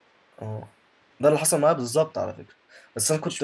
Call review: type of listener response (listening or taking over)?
listening